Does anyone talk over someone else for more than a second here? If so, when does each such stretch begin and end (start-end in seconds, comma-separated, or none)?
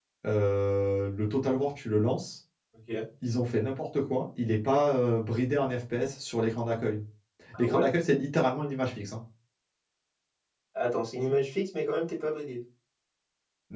none